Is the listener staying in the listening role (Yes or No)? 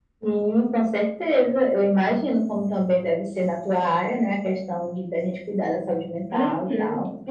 No